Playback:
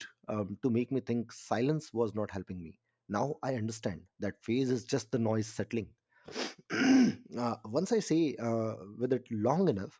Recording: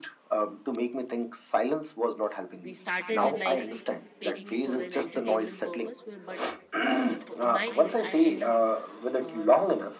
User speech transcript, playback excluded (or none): we started with like taking it for an entertainment purpose where- but uh, for, in my case i end up uh,